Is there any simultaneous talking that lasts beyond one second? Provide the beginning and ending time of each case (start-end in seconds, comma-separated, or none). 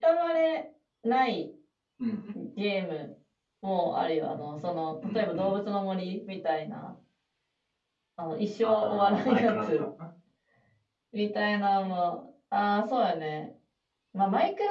8.6-9.8